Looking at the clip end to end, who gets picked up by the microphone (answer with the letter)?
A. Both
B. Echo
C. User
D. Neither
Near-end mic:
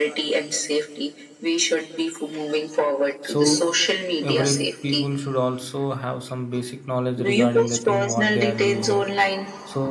A